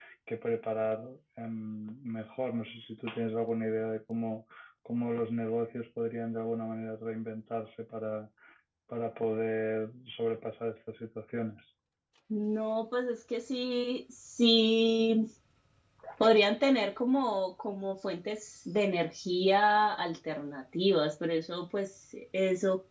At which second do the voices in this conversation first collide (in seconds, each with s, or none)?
none